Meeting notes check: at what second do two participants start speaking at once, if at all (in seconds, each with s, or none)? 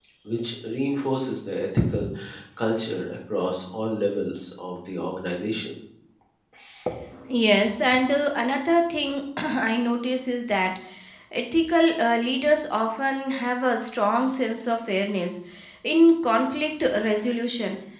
none